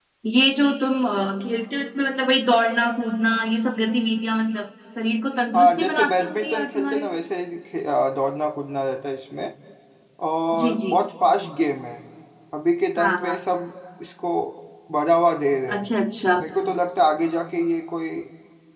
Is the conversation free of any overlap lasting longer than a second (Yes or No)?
No